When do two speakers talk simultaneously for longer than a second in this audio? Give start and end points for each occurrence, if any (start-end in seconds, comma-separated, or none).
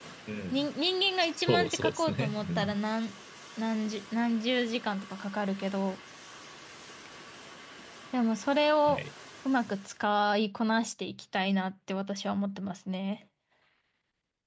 1.3-2.8